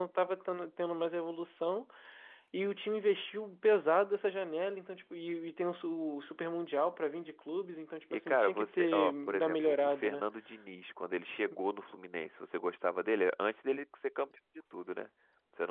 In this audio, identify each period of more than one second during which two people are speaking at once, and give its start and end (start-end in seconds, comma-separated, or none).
8.1-10.3